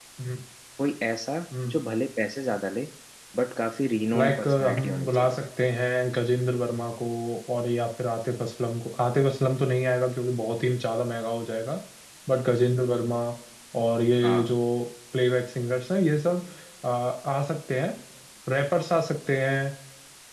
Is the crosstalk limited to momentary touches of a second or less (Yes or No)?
No